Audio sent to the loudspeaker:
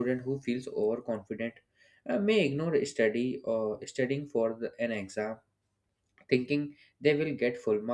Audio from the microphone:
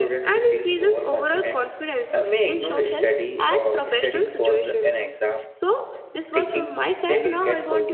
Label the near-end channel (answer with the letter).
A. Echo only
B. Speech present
B